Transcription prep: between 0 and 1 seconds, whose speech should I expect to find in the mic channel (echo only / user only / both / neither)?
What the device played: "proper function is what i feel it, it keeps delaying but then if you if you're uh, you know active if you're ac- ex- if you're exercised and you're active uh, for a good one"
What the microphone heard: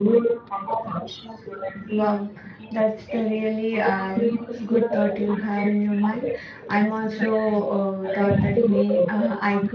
echo only